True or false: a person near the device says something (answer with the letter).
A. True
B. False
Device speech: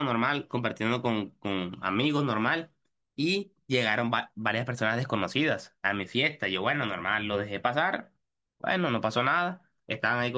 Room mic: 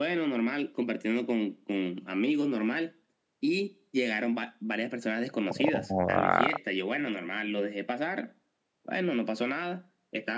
A